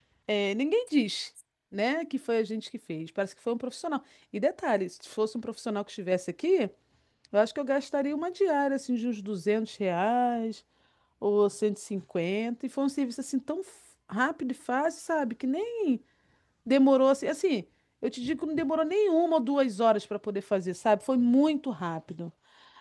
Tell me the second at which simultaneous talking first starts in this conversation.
none

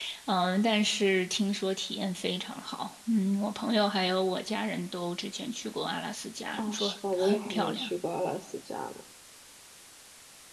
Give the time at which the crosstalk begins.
6.6 s

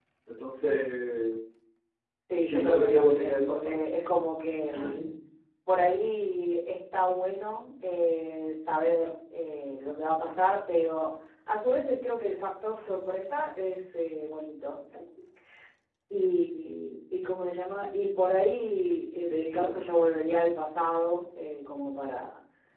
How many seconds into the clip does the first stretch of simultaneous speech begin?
2.5 s

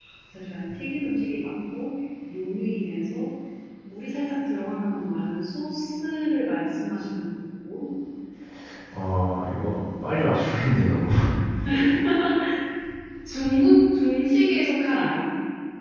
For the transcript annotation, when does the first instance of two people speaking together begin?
none

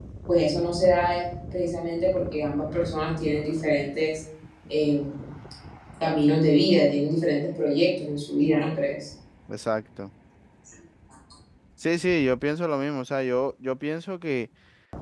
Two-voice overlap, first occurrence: none

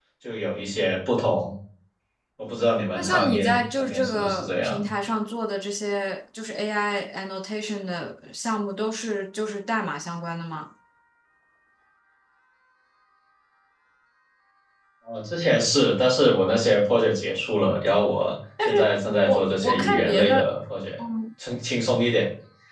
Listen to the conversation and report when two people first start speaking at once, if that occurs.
2.9 s

